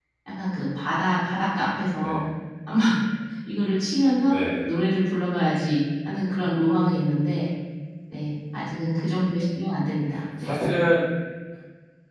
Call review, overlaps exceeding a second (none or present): none